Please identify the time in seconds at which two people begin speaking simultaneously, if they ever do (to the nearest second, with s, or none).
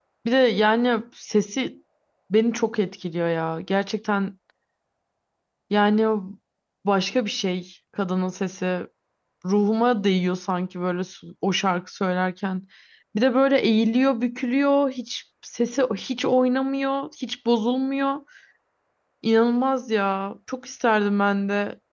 none